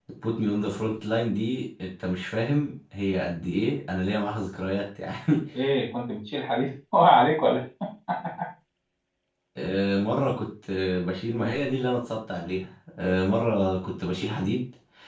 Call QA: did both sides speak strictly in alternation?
Yes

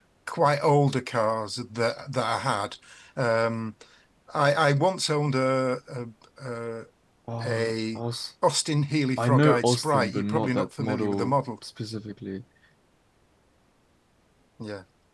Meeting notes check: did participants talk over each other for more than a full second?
Yes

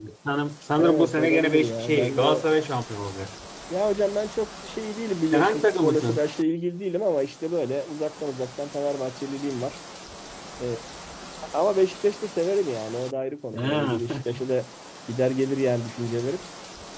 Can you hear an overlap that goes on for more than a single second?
Yes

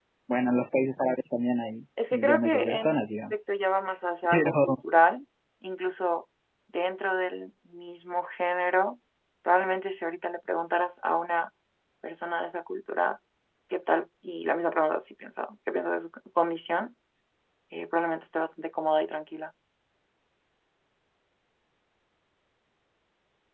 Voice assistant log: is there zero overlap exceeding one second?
No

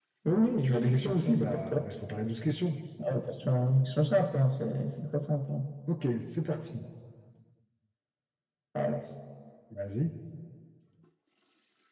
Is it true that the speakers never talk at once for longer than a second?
No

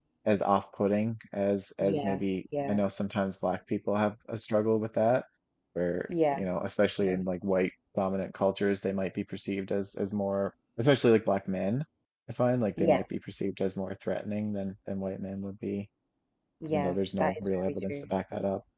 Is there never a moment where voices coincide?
No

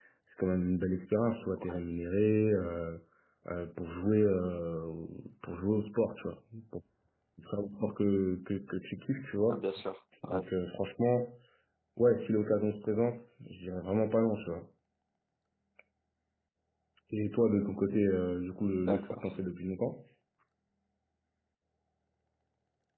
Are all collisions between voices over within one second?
Yes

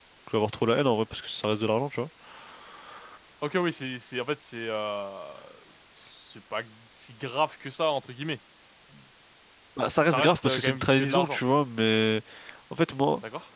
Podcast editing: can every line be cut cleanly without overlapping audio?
No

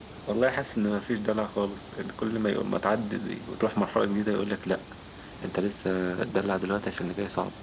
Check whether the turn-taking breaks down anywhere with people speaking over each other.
No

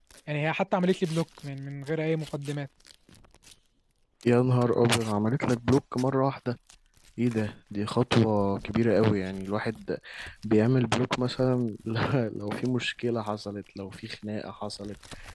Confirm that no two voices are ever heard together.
Yes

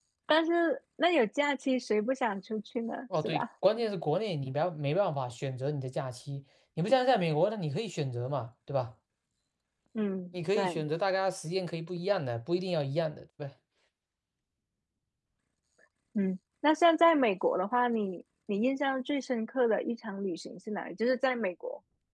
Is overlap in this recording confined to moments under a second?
Yes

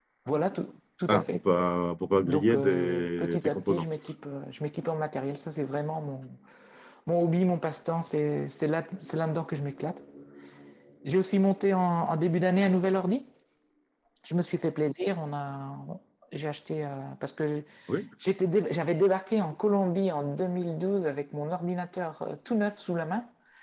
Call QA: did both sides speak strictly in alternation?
No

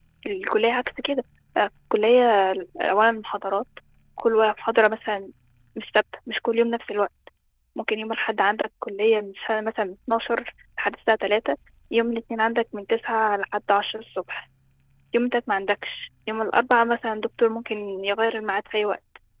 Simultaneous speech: No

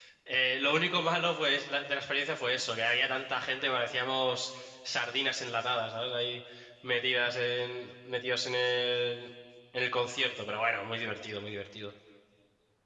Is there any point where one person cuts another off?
No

